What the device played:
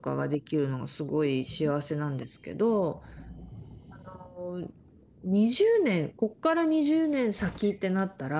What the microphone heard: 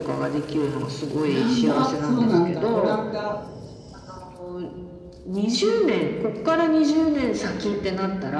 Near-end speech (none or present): present